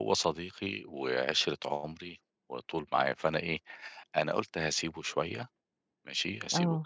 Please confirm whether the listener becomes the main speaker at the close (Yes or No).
No